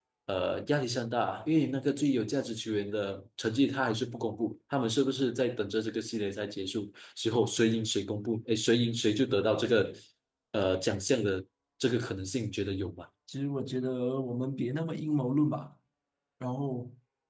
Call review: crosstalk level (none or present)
none